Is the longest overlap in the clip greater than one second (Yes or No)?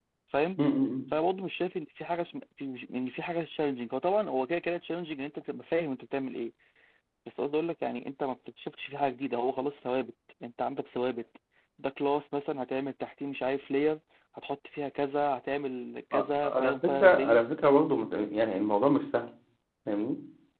Yes